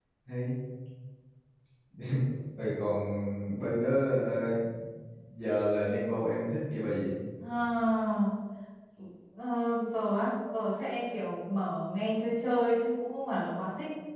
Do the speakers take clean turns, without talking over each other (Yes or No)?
Yes